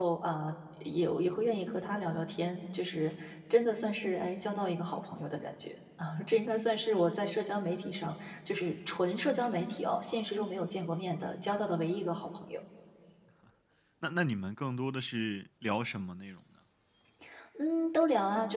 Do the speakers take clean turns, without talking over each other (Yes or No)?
Yes